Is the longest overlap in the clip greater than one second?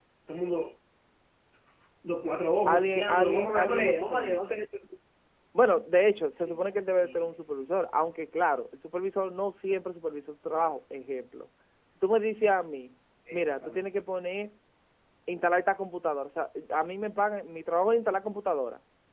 Yes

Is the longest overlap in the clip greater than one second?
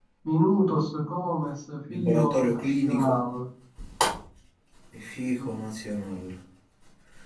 Yes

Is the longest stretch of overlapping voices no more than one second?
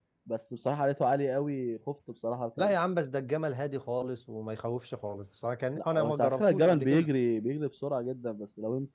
No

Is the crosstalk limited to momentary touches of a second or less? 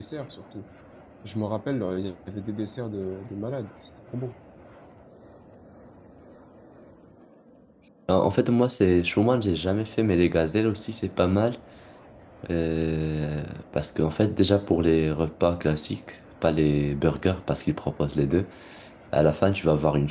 Yes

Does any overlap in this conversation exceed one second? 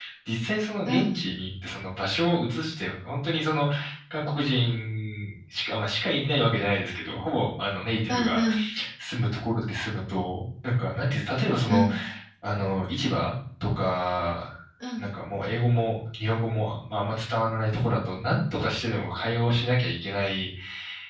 No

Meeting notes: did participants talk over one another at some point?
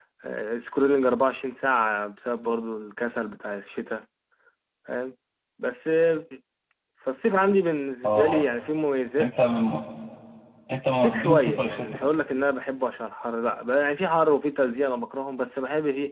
Yes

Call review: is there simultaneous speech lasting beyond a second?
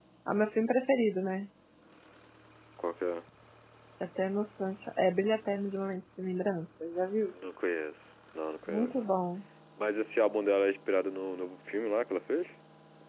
No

